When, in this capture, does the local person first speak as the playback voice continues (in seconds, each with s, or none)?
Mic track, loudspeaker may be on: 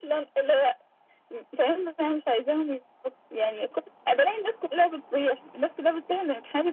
none